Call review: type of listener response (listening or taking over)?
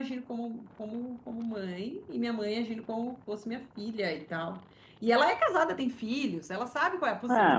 taking over